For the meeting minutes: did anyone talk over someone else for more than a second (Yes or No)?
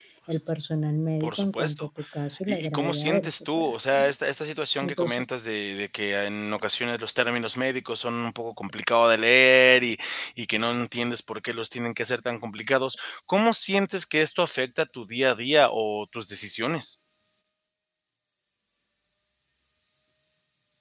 Yes